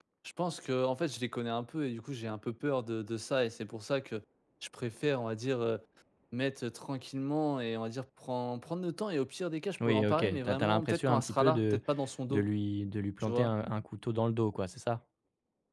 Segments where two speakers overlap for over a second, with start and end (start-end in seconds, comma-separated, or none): 9.8-11.8